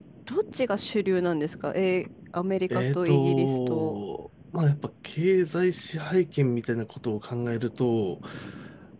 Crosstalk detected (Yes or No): Yes